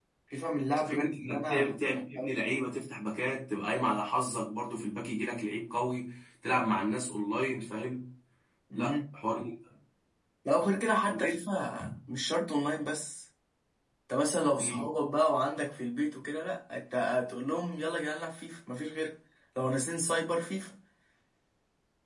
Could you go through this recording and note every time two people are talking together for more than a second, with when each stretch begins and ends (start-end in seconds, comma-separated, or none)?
0.9-2.4